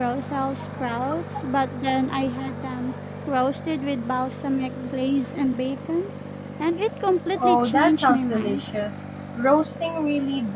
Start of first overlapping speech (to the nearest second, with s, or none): 7 s